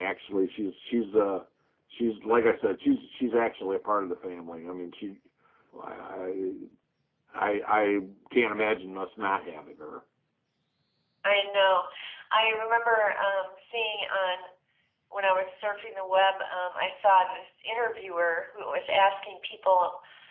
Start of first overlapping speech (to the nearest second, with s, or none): none